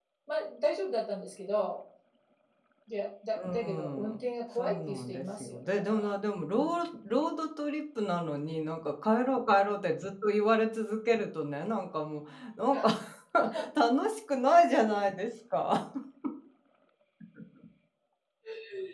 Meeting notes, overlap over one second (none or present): present